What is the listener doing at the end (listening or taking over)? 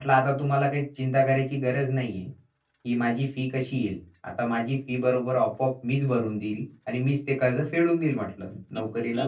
taking over